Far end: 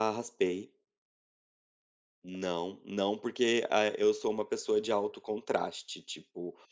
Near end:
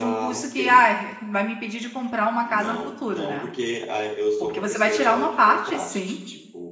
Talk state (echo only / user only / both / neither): both